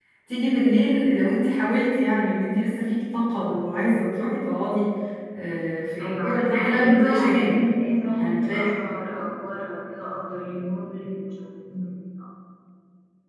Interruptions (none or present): present